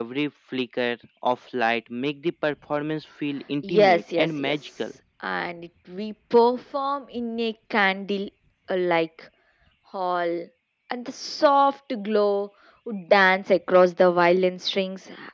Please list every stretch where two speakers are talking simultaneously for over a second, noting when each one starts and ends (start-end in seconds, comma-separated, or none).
3.7-4.9